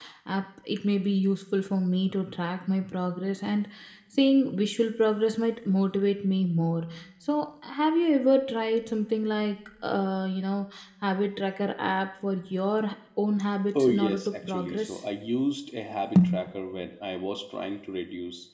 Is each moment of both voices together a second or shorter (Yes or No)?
No